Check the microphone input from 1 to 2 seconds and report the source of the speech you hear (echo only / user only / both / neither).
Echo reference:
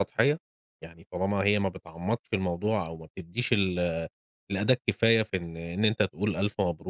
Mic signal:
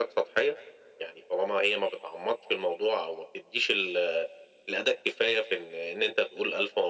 echo only